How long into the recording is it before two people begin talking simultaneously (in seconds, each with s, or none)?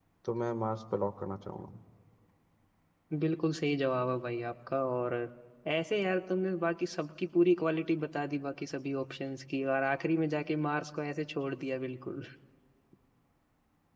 none